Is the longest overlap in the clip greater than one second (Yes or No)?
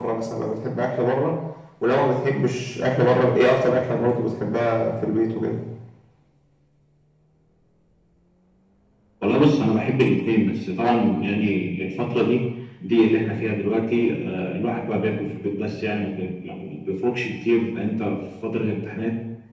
No